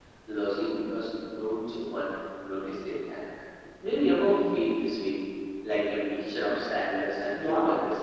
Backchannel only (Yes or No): No